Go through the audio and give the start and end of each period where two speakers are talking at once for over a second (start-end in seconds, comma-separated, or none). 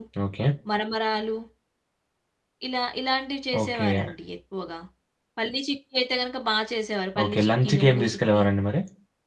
7.2-8.4